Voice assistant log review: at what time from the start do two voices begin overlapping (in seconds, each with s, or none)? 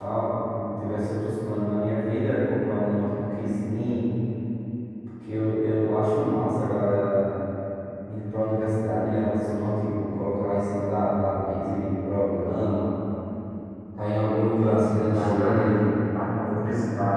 14.6 s